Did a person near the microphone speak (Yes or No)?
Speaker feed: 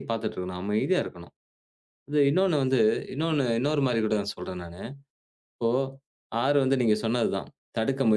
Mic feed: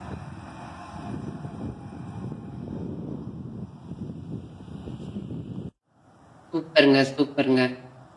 Yes